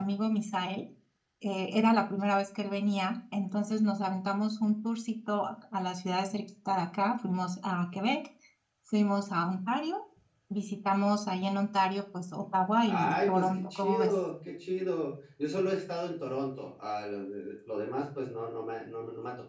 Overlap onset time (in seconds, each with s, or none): 12.8 s